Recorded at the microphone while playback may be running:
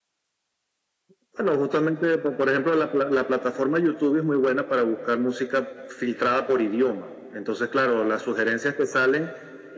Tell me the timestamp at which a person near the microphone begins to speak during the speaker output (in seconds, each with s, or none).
none